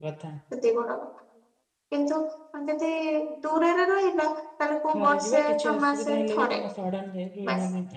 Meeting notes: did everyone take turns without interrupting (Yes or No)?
No